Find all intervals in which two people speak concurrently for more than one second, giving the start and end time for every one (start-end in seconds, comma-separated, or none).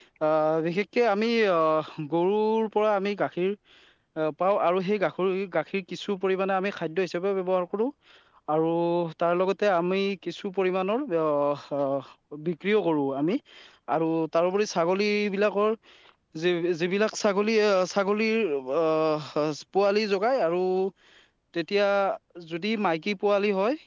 none